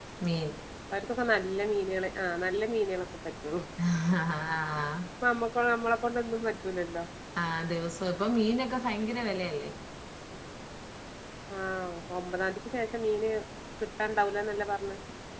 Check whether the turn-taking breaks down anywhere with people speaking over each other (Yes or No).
No